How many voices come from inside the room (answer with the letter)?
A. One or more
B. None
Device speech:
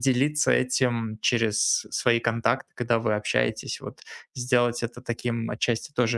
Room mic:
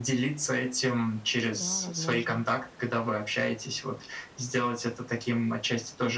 A